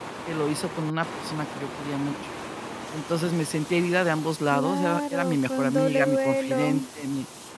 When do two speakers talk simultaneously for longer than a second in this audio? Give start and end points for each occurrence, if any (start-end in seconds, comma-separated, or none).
4.5-6.8